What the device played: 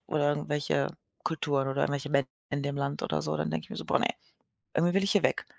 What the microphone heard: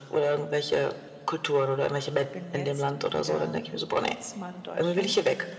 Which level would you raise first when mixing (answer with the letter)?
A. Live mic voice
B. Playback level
A